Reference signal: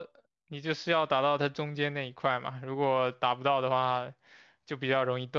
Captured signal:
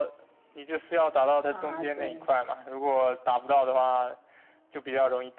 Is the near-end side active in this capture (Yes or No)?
Yes